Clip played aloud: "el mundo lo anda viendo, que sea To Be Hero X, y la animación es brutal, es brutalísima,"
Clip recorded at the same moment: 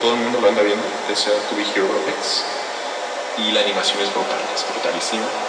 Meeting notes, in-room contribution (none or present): none